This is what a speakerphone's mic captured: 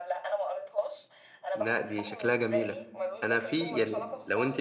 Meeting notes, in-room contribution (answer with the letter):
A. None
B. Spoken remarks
B